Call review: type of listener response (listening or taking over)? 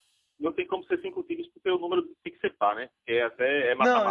taking over